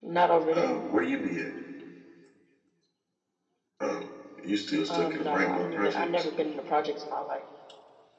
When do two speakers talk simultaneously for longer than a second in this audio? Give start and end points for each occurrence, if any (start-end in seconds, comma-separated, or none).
4.9-6.2